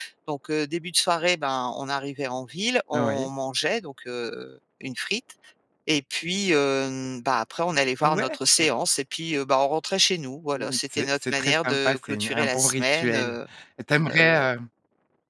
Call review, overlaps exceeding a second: present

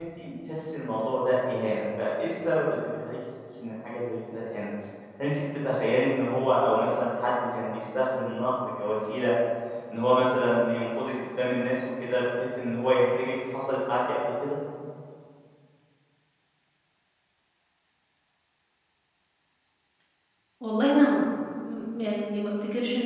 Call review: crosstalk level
none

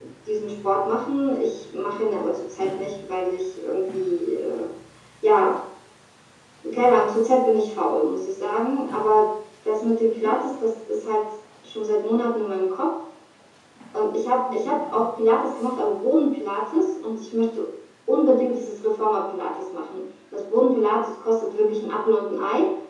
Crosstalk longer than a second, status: none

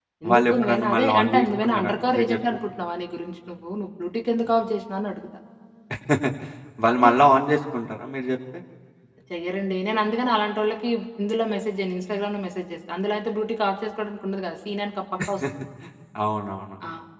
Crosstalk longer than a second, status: present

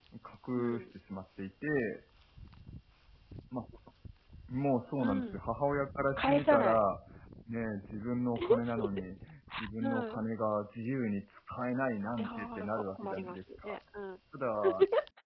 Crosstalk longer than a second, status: present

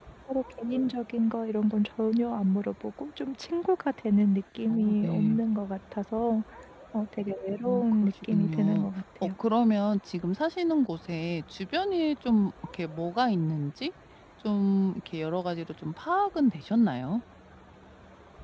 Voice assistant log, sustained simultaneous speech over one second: present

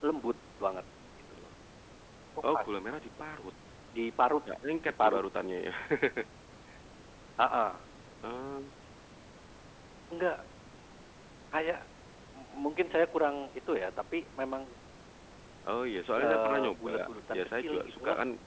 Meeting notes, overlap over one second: present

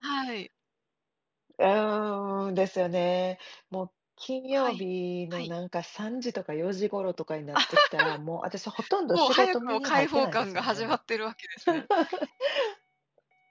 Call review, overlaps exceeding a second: present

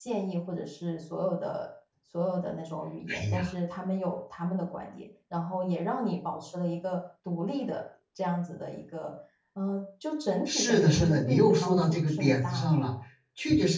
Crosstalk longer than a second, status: present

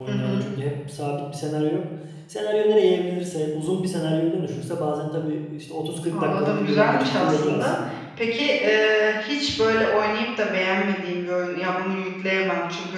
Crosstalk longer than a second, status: present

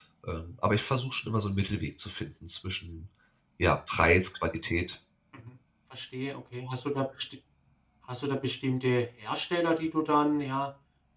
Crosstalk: none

